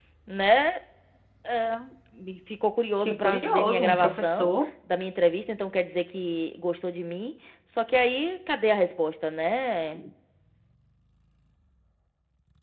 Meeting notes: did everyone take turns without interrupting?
No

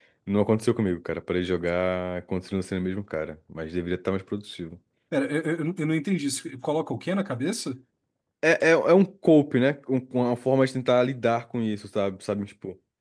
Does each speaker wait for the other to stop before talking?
Yes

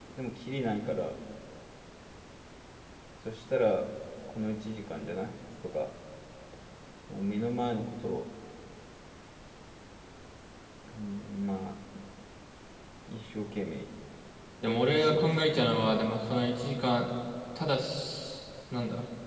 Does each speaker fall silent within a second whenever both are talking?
No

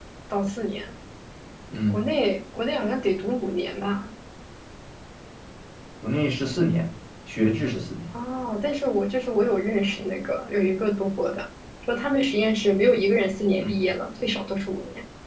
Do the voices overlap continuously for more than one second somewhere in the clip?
No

